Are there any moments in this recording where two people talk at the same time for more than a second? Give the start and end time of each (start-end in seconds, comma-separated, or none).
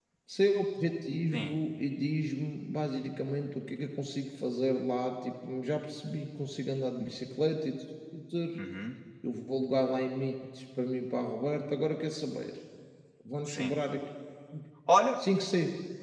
none